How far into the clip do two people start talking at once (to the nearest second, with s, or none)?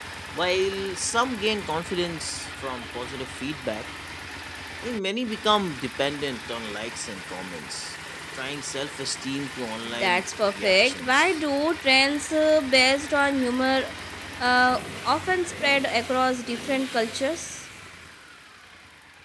10 s